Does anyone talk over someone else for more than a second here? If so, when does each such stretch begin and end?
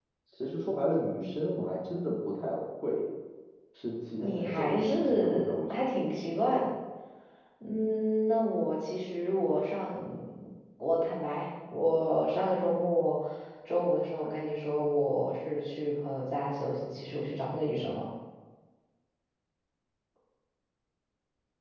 4.2-5.8

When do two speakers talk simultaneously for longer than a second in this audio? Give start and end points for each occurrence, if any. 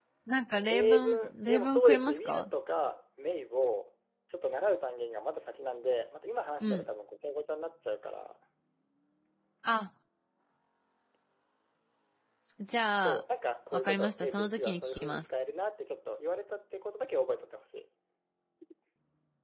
0.6-2.5, 13.7-15.2

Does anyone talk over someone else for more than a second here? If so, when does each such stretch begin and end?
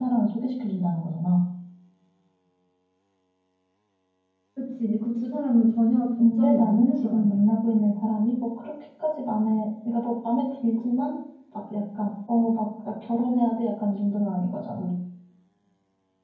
6.2-7.4

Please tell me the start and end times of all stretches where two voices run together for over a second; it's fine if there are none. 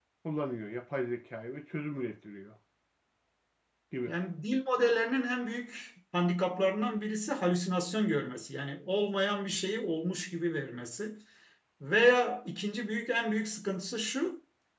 none

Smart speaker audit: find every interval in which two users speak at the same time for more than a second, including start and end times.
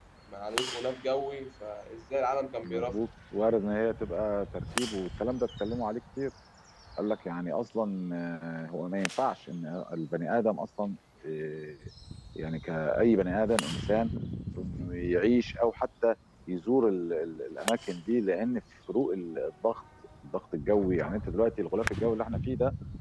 none

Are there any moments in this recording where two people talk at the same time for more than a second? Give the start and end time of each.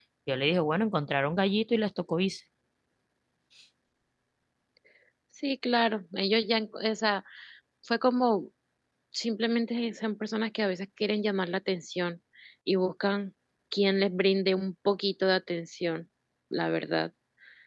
none

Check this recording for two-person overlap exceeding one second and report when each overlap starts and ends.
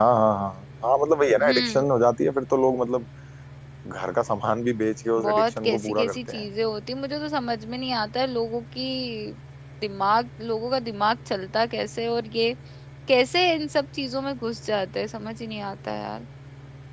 5.2-6.4

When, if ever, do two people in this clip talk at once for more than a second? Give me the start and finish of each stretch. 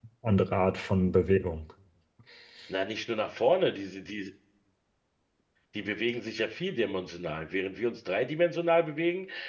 none

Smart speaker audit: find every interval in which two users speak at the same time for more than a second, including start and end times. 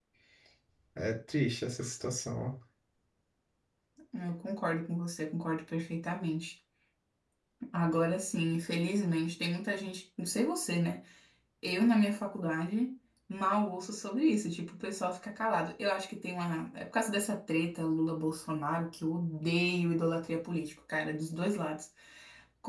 none

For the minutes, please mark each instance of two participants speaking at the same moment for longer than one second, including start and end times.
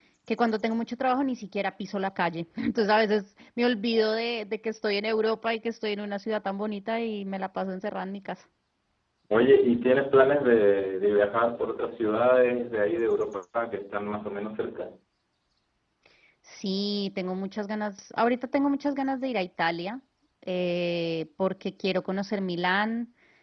none

